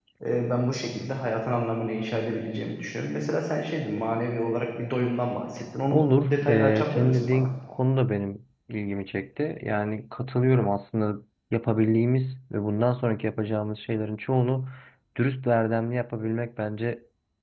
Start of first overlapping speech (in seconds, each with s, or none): 5.9 s